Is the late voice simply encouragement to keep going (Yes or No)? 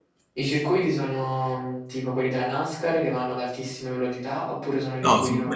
No